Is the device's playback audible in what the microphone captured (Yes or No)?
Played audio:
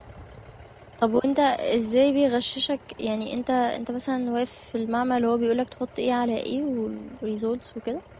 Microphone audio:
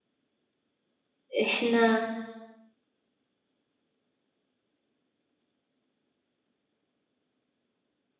No